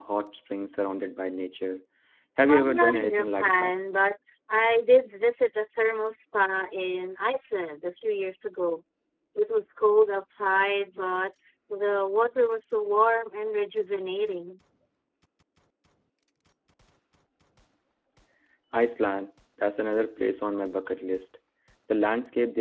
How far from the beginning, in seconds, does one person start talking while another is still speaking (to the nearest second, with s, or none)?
2 s